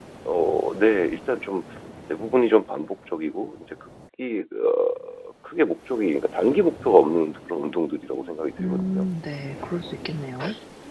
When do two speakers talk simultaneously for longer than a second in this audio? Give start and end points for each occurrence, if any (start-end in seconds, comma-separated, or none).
none